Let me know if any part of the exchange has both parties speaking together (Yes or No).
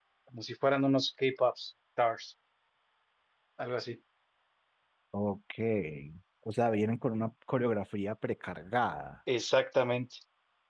No